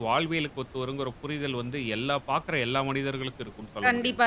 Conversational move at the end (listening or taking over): taking over